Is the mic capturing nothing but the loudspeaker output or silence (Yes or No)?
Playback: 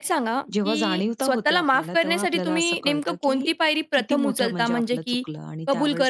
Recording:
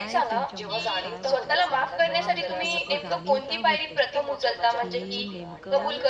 No